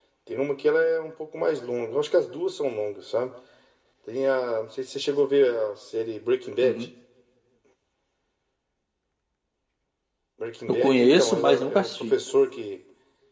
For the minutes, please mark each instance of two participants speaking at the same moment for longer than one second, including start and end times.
10.7-12.2

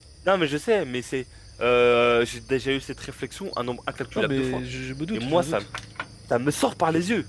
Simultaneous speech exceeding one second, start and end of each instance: none

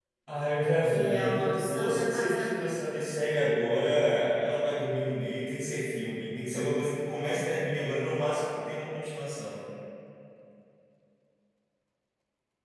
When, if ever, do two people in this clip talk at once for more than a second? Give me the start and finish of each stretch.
0.8-2.7

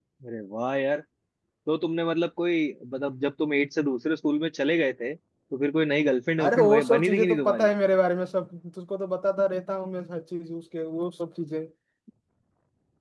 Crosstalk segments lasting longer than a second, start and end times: 6.4-7.7

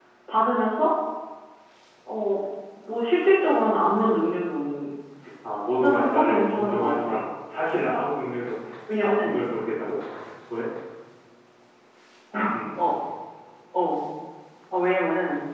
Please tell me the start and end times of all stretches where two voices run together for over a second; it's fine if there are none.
5.8-7.2

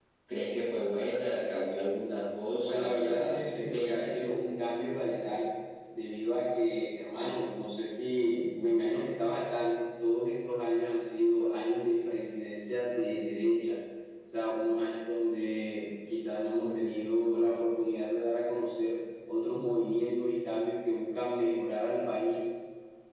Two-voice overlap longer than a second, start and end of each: 2.6-4.2

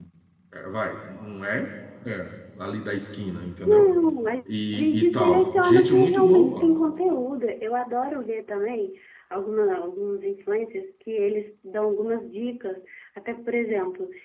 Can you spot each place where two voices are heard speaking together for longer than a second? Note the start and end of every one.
4.7-6.6

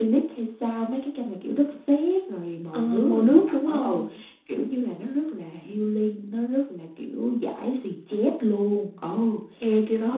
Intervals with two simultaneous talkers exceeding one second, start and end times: 2.7-4.0

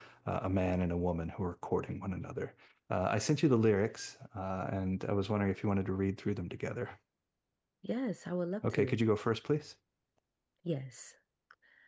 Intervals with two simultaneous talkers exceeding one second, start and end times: none

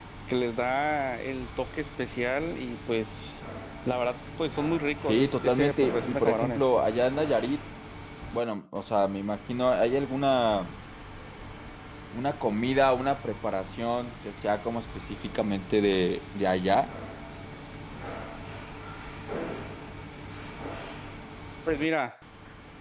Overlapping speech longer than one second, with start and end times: 5.1-6.7

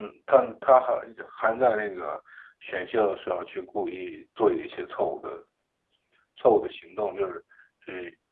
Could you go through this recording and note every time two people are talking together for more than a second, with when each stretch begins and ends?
none

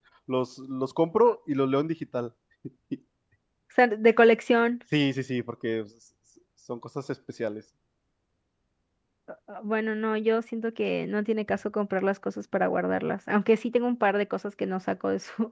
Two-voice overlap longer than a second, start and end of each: none

